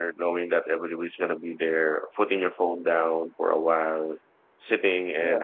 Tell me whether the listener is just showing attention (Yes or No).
Yes